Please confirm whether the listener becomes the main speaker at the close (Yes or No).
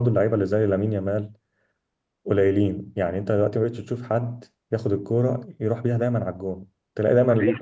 No